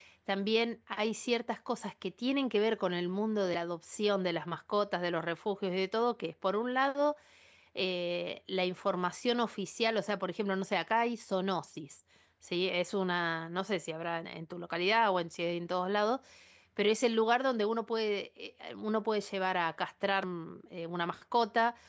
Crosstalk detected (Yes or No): No